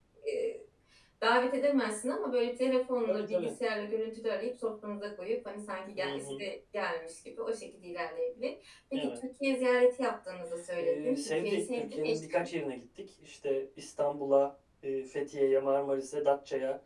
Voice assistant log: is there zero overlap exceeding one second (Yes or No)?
No